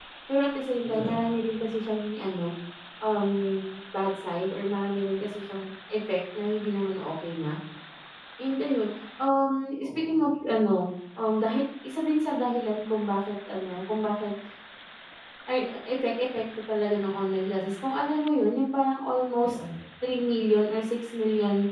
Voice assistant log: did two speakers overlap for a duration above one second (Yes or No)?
No